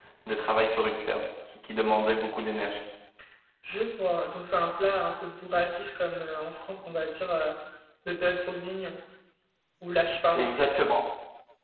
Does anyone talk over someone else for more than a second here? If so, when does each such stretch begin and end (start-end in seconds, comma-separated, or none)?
none